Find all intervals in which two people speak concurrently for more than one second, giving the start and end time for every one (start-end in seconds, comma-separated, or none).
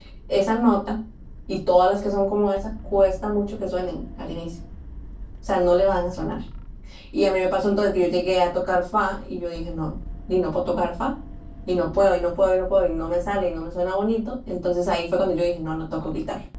none